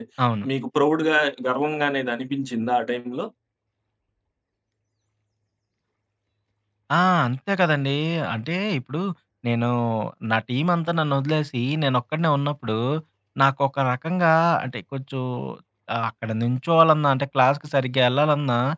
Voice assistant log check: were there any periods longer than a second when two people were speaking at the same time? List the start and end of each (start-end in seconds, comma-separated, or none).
none